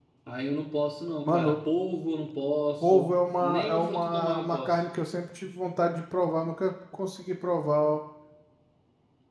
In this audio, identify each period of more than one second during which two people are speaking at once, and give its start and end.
2.8-4.8

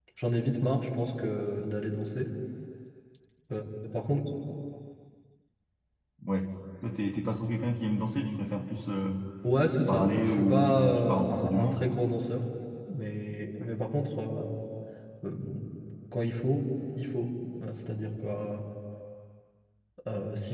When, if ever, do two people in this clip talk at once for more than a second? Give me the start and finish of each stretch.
9.9-11.9

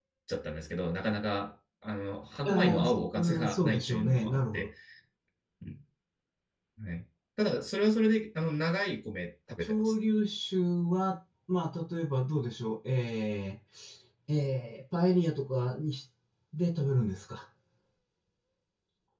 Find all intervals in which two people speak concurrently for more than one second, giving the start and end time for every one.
2.5-4.7

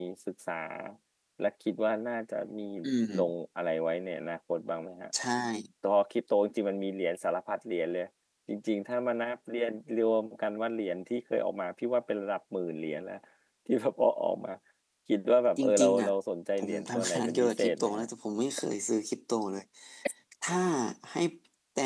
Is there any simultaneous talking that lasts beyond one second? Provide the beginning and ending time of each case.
16.6-18.1

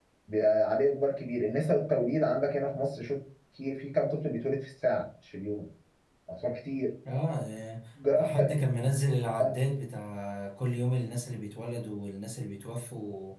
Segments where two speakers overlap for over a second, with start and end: none

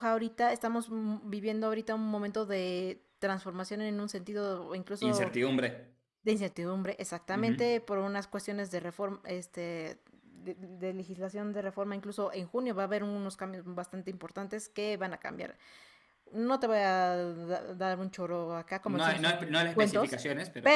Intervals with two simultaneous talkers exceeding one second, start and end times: 18.9-20.2

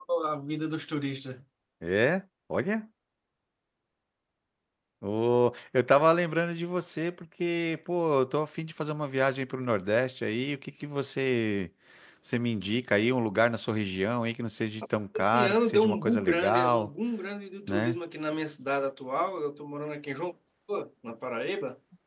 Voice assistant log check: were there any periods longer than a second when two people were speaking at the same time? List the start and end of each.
15.2-16.9

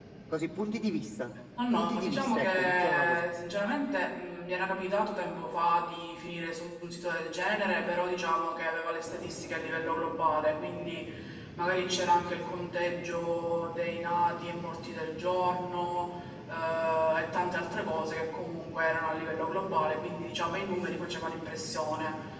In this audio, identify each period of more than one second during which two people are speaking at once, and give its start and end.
1.7-3.3

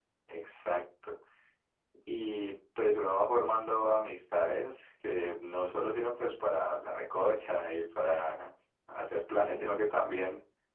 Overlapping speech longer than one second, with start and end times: none

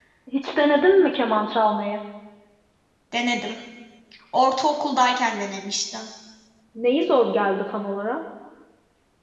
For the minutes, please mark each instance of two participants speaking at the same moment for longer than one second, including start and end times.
none

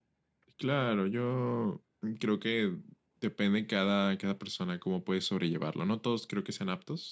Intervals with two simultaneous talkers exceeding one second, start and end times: none

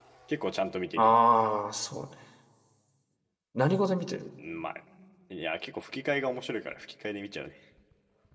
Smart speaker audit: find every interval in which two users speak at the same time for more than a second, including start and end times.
none

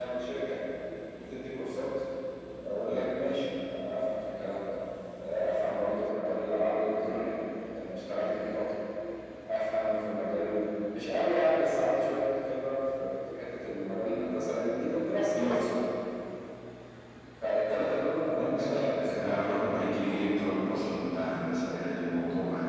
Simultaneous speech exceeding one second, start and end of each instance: 18.4-19.7

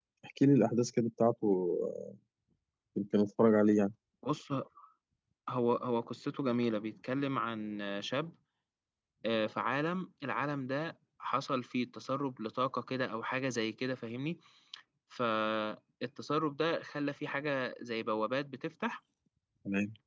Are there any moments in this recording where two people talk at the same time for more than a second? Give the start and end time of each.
none

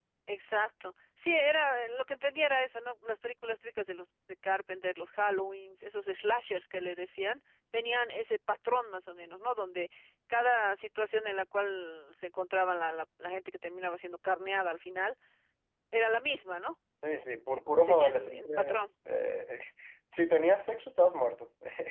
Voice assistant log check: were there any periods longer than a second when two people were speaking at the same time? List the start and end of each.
17.5-18.9

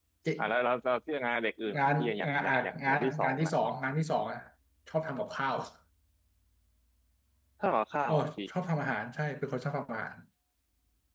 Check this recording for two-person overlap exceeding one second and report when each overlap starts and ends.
1.8-3.5

